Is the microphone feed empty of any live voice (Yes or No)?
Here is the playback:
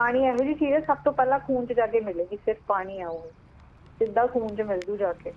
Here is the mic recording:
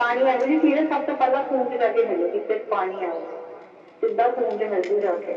Yes